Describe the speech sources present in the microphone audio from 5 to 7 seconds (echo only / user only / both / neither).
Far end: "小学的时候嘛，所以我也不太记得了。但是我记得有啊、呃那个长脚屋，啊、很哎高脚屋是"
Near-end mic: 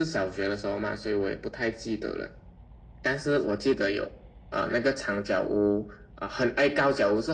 echo only